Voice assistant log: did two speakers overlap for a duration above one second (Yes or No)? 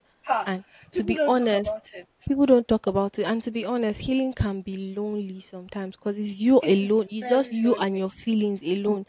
Yes